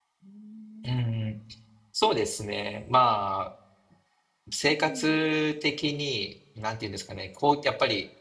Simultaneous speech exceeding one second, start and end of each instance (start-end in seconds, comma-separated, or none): none